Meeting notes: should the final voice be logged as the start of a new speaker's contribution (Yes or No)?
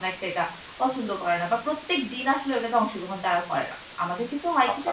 No